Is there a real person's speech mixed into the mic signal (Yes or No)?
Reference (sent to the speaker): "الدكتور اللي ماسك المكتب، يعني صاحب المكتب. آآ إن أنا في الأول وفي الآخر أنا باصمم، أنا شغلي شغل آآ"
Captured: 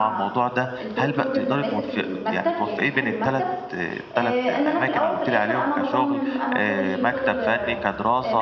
Yes